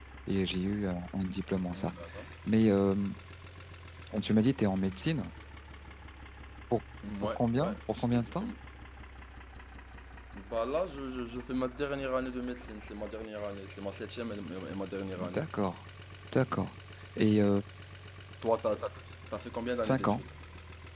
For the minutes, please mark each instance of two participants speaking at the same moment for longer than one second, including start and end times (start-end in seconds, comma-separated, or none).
7.2-8.4